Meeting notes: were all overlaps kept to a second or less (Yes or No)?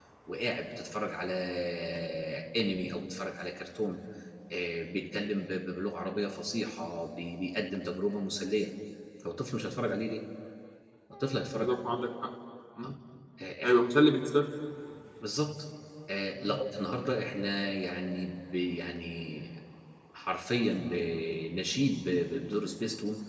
Yes